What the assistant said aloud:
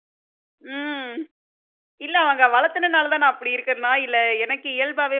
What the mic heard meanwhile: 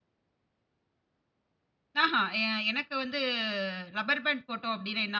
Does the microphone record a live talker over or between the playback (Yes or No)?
Yes